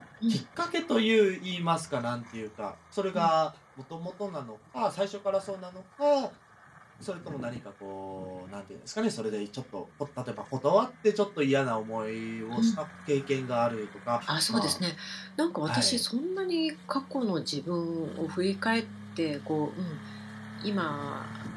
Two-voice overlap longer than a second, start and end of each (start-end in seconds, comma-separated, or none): none